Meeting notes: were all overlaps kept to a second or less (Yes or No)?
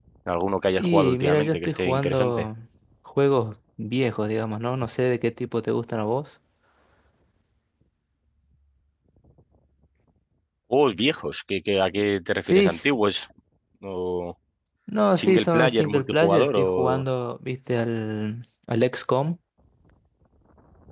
No